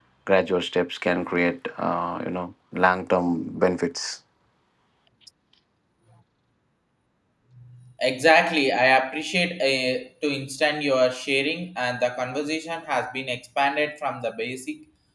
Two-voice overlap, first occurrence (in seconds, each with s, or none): none